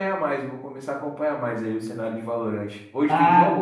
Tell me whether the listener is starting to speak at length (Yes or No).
Yes